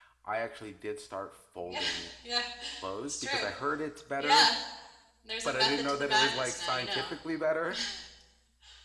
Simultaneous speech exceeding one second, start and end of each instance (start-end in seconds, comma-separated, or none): 5.4-7.1